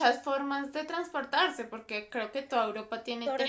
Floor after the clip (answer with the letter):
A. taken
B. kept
A